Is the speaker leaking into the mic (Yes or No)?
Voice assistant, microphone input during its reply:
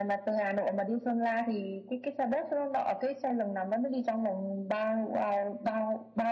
Yes